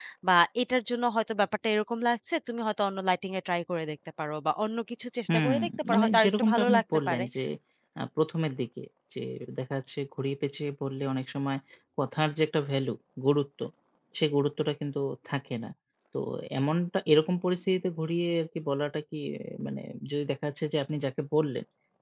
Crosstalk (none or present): present